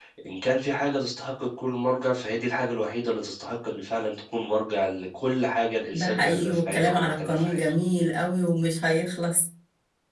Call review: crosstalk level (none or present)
present